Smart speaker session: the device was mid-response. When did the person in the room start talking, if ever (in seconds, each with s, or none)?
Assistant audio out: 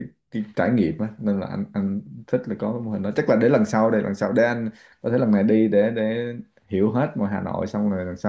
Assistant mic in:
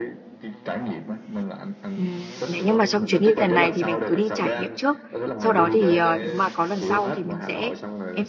1.9 s